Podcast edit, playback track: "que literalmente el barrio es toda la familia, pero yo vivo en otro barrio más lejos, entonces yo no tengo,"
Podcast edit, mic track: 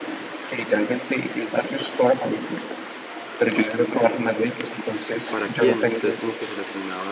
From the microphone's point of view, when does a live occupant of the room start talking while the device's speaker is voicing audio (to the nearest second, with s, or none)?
5 s